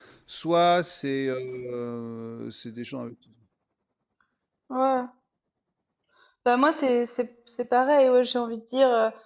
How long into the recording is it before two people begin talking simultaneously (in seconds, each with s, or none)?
none